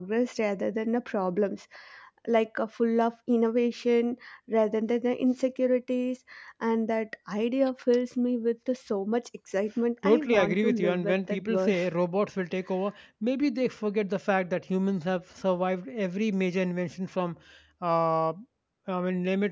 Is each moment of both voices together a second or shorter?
No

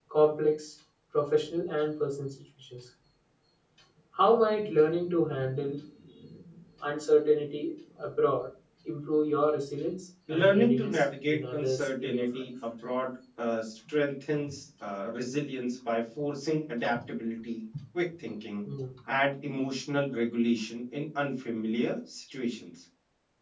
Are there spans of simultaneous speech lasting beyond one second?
Yes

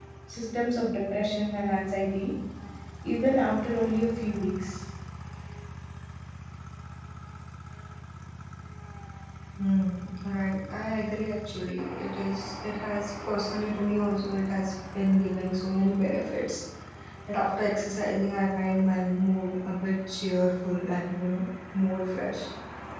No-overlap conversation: Yes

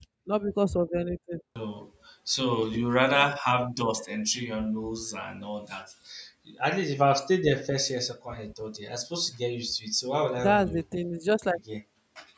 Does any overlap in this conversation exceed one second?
No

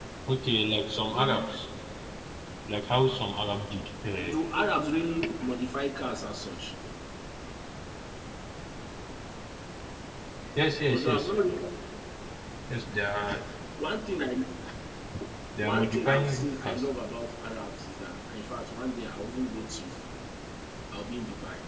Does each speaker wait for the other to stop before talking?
No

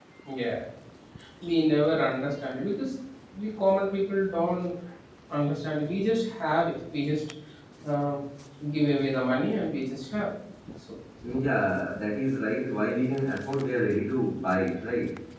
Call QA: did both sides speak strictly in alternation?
Yes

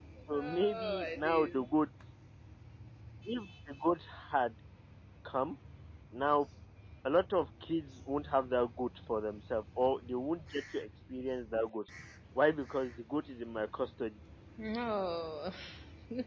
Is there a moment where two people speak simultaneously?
Yes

